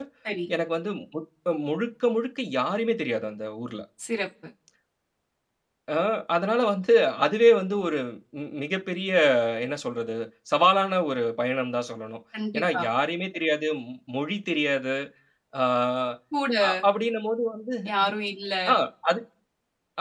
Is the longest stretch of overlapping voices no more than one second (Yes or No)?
Yes